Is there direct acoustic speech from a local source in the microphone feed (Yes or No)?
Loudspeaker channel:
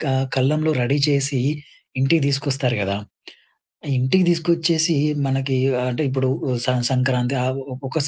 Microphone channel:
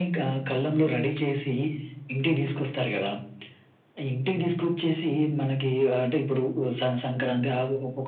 No